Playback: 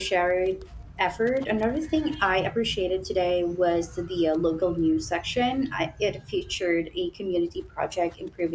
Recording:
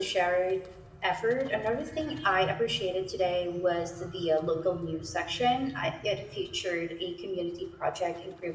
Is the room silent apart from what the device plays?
Yes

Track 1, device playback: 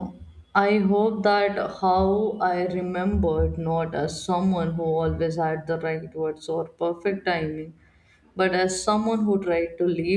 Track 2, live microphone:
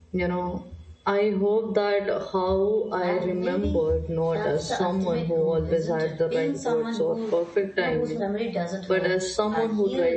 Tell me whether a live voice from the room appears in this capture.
Yes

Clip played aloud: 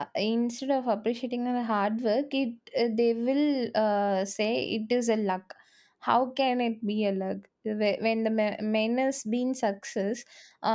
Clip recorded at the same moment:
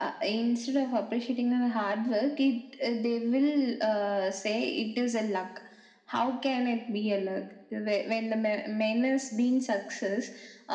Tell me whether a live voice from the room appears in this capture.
No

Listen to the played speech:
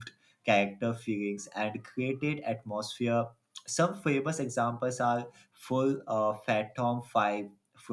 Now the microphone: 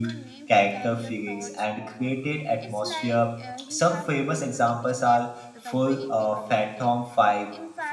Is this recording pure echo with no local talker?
No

